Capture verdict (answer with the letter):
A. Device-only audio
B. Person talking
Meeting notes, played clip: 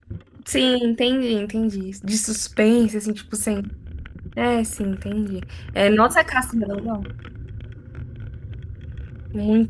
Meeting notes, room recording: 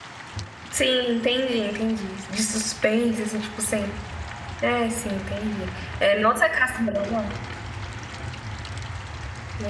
A